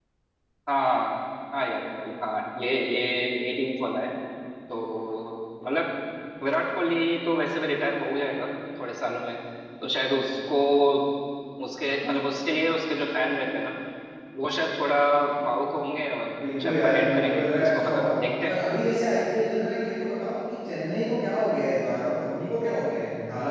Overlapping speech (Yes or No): Yes